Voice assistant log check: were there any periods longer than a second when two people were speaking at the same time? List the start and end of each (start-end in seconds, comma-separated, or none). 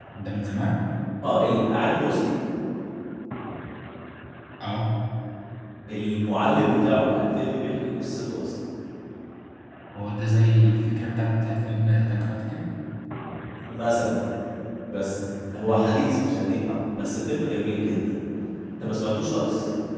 none